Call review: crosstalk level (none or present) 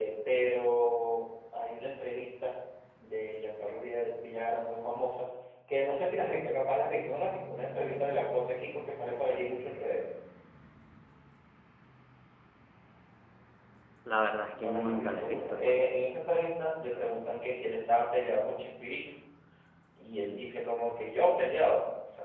present